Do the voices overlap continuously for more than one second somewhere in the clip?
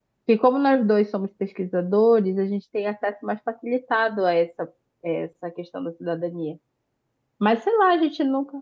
No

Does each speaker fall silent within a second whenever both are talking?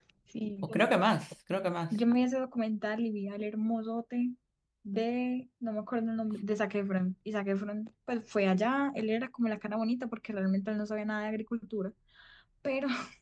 Yes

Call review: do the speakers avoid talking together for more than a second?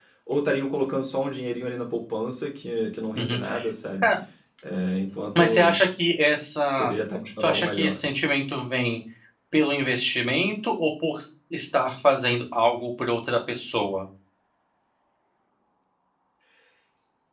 Yes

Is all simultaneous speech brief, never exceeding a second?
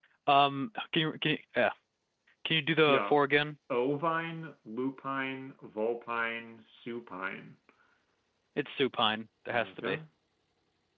Yes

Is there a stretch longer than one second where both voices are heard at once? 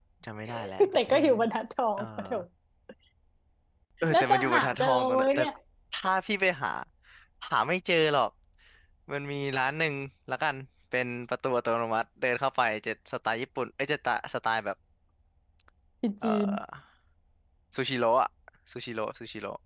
Yes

